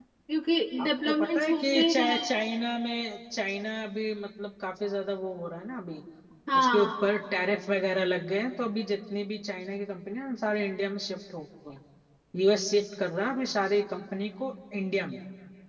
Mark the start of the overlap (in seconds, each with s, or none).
0.8 s